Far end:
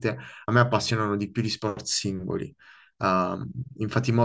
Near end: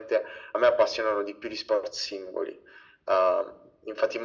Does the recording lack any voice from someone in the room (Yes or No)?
Yes